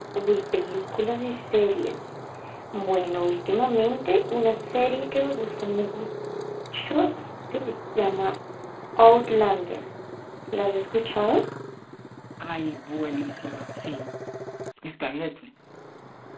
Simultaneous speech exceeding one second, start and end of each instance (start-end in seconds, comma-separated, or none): none